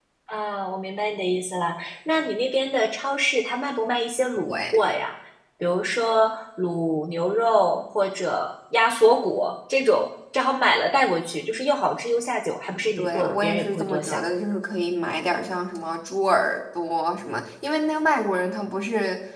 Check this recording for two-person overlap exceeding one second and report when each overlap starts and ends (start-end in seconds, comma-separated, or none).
13.0-14.2